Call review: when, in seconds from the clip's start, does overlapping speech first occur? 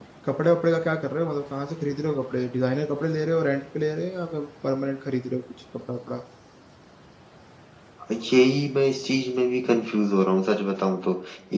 none

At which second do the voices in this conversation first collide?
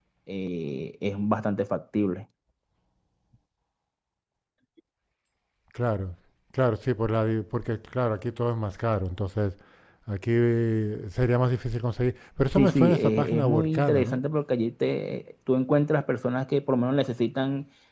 12.6 s

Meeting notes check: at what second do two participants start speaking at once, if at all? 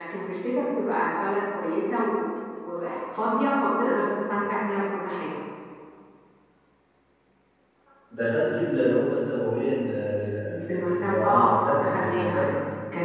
10.5 s

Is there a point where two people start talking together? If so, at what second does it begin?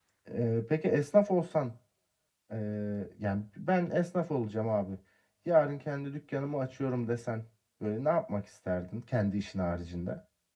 none

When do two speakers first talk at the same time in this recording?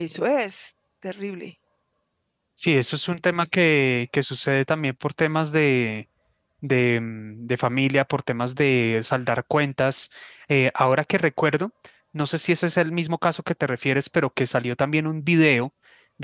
none

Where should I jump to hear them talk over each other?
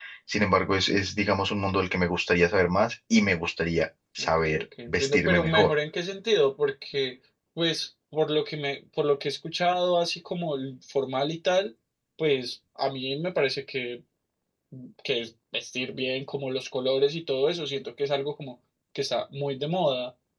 4.2 s

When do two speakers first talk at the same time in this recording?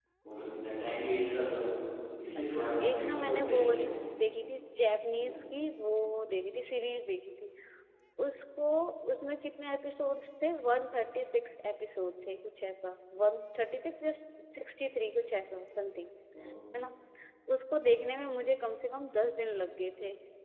2.5 s

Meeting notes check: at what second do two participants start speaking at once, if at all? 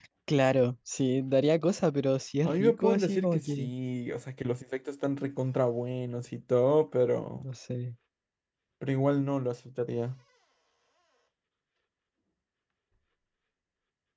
2.4 s

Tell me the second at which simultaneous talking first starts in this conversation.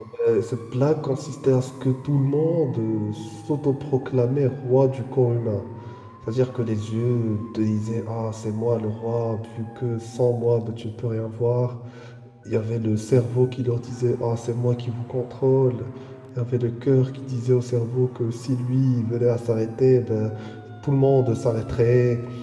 none

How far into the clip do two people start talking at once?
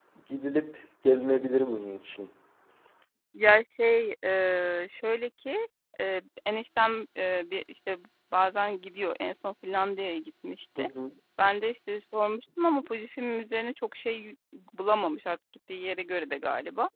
none

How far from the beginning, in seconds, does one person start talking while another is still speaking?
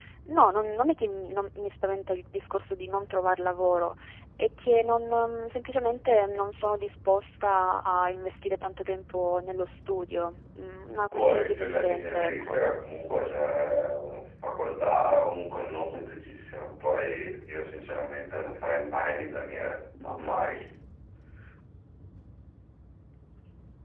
11.1 s

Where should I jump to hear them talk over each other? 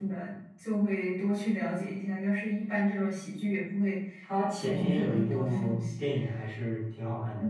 4.6 s

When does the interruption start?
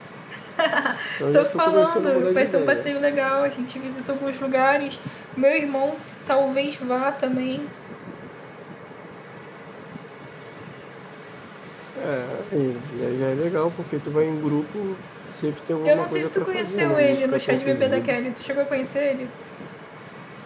1.3 s

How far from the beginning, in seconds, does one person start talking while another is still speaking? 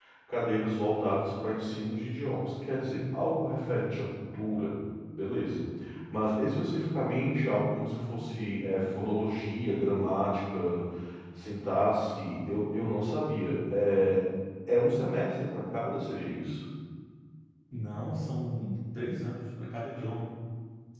none

